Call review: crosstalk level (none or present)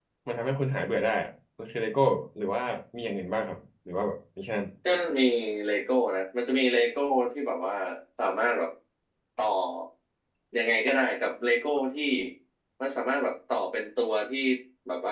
none